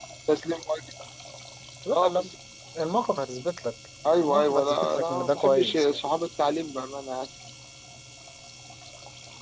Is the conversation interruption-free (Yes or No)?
No